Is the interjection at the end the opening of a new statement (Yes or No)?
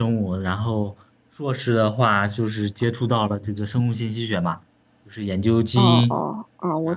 Yes